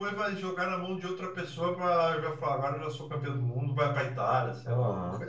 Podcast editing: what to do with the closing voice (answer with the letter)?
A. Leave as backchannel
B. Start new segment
B